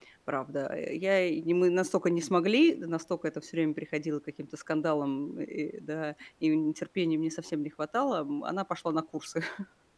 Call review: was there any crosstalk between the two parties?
No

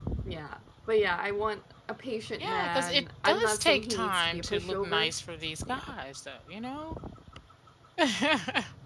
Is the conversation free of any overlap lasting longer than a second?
No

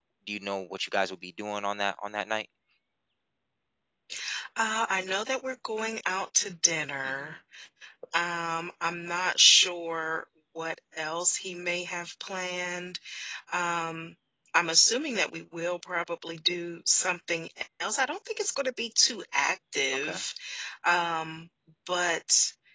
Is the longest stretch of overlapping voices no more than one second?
Yes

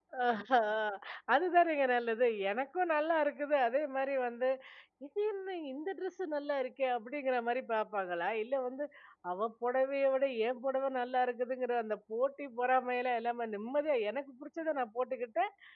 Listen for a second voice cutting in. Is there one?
No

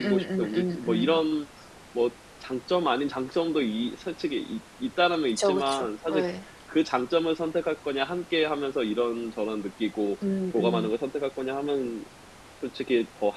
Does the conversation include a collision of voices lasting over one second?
Yes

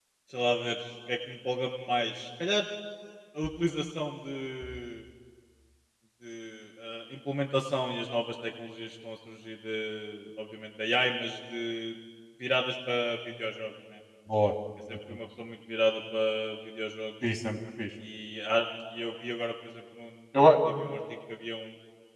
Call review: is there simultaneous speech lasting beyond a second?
No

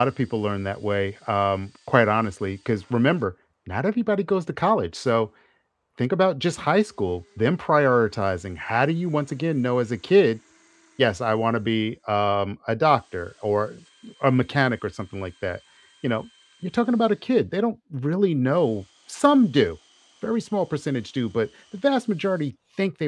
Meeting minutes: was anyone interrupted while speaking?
No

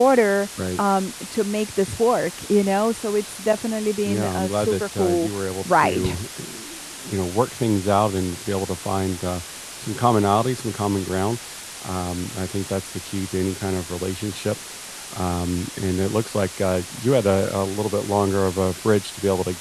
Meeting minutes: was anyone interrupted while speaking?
Yes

